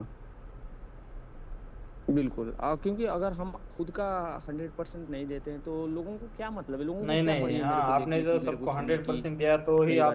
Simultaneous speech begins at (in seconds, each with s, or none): 7.0 s